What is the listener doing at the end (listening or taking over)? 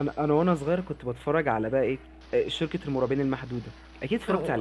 taking over